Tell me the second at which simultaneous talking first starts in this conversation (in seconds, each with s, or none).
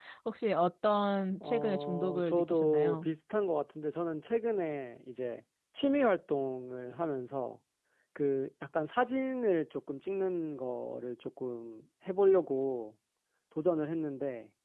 1.4 s